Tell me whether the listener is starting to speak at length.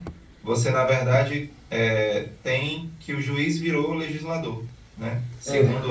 No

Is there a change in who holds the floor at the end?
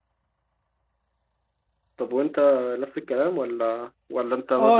Yes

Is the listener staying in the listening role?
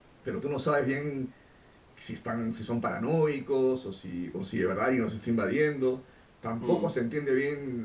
Yes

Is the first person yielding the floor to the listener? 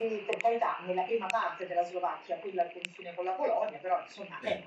No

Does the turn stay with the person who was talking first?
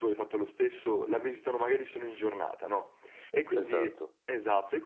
Yes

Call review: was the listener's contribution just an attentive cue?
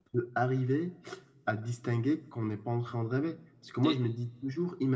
Yes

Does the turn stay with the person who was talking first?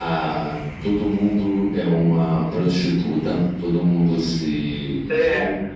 Yes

